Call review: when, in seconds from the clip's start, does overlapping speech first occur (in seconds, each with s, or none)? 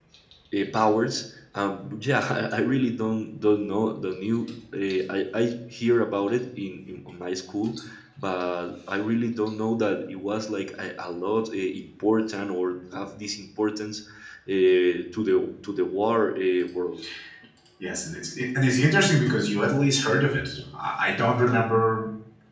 none